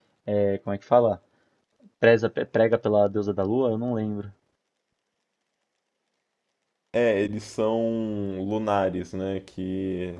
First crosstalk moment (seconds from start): none

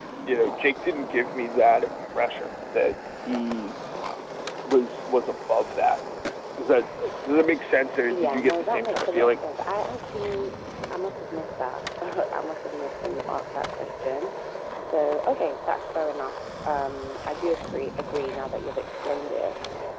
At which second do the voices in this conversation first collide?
8 s

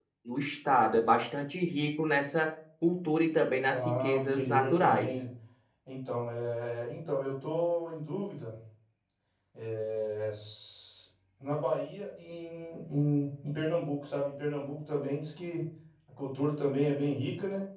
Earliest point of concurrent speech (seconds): 4 s

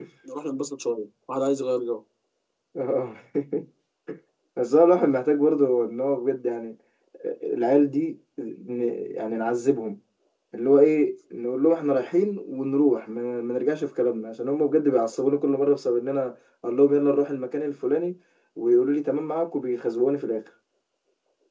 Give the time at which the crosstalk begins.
none

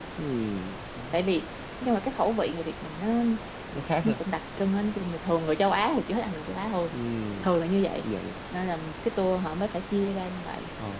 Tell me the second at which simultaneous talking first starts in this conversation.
none

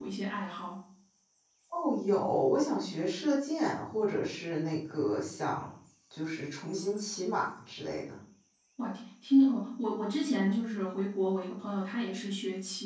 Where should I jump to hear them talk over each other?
none

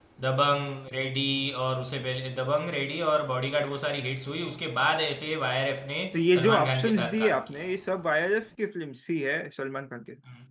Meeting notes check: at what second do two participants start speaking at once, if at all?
6 s

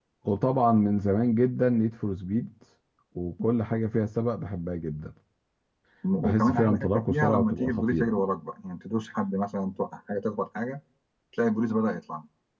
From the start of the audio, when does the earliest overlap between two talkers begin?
6 s

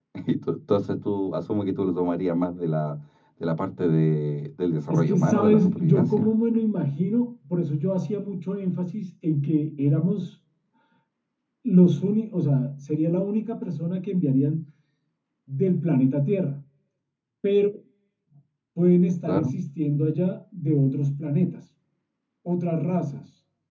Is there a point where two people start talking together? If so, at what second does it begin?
5 s

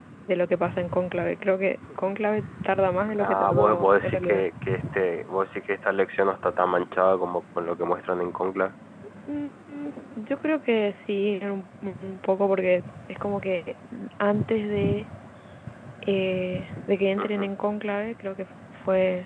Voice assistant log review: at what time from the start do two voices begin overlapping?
3 s

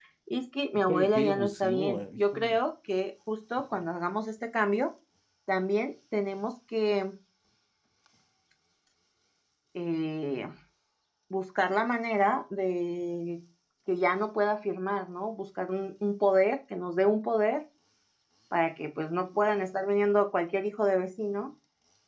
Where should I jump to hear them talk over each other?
1 s

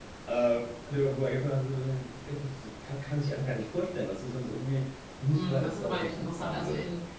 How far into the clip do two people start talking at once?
5 s

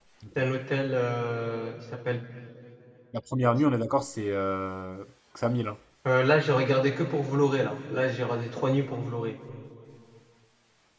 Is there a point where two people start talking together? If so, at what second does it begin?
none

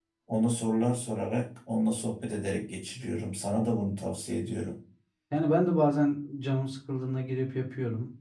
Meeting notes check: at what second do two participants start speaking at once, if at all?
none

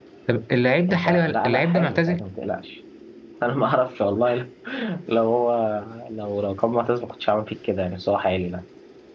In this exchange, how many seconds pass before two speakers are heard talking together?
1 s

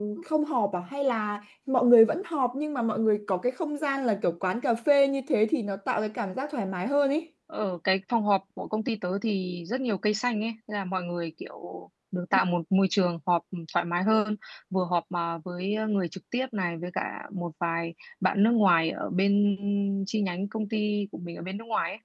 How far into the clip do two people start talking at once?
none

